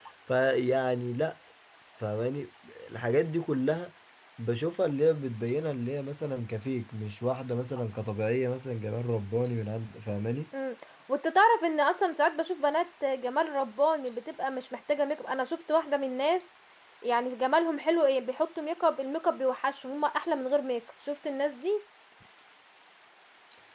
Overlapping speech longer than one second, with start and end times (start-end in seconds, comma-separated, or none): none